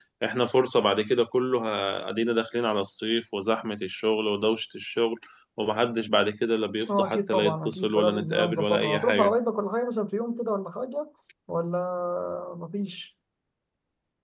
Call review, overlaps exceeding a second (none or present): present